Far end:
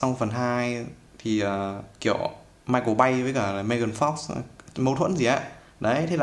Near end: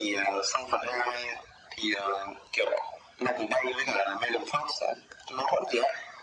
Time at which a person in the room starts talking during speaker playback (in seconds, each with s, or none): none